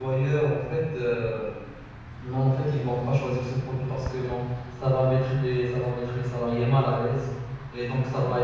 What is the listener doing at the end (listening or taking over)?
listening